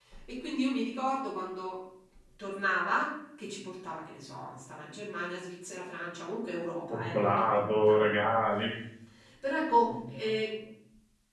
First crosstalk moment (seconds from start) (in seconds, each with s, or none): 6.9 s